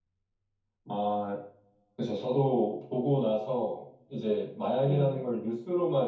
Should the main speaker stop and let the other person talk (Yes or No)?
No